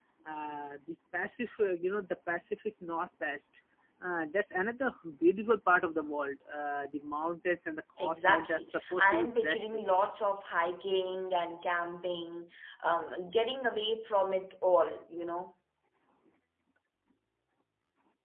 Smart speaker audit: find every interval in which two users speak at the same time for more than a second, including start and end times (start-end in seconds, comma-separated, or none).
8.0-9.8